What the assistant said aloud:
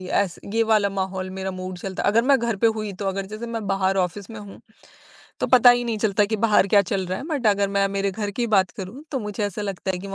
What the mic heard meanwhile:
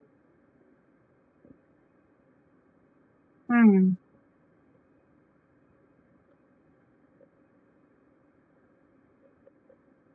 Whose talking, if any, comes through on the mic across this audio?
user only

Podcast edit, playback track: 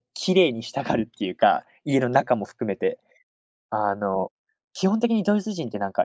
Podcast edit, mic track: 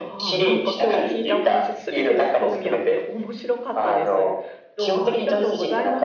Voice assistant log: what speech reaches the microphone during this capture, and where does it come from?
both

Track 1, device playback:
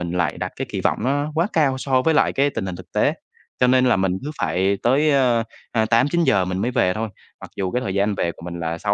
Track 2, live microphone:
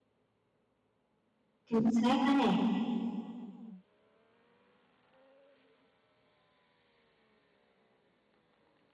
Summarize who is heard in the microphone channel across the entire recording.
user only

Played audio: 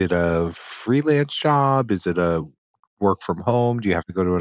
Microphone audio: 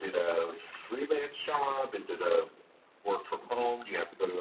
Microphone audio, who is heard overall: echo only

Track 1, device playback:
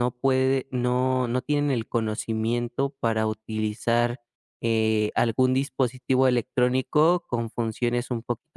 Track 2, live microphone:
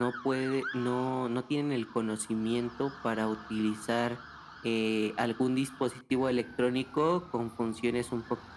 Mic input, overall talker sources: echo only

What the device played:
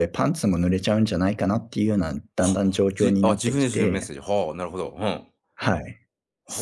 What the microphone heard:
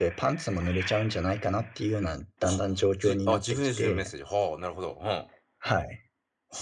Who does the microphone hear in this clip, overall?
echo only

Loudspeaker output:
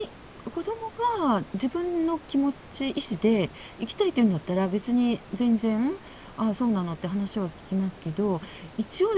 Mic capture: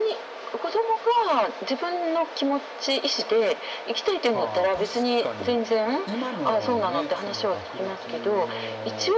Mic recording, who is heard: both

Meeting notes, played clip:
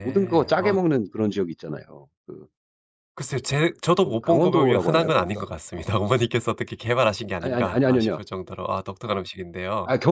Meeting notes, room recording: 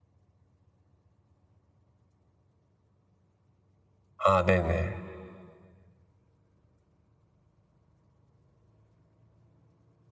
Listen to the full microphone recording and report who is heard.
user only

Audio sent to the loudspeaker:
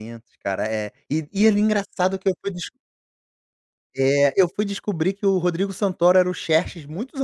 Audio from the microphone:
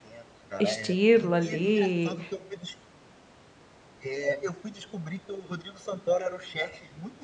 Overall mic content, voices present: both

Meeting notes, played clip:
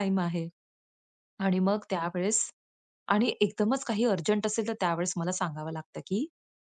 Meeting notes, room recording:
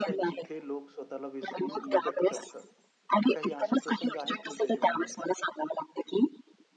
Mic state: both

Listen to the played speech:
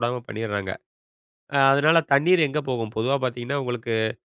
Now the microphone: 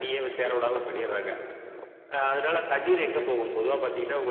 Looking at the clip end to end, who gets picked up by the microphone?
echo only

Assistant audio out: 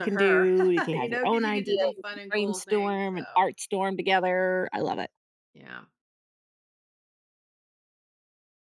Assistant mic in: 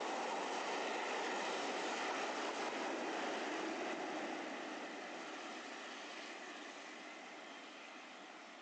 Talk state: neither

